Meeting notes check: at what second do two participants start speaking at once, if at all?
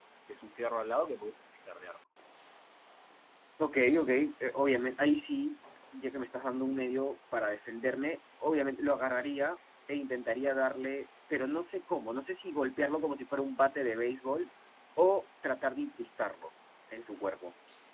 none

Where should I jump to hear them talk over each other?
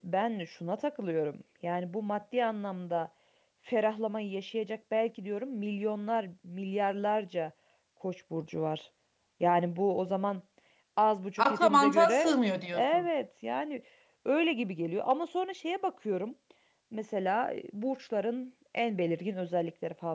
11.4 s

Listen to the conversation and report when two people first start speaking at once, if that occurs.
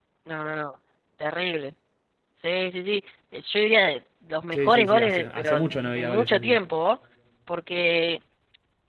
4.5 s

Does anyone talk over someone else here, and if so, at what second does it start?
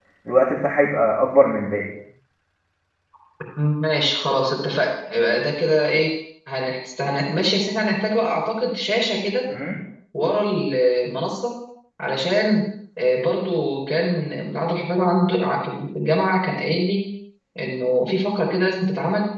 none

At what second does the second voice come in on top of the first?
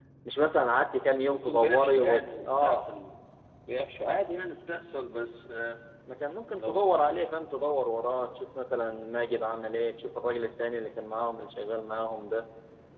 1.3 s

